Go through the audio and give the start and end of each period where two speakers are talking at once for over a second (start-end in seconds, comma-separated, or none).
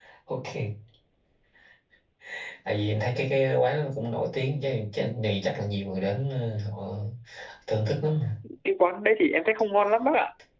none